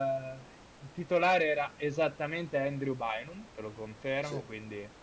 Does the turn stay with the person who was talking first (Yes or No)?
Yes